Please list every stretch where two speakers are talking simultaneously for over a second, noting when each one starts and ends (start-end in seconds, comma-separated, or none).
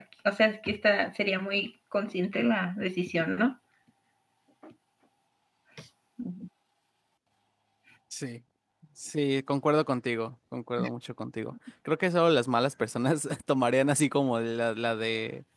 none